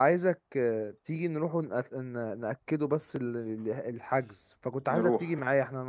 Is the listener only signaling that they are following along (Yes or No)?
Yes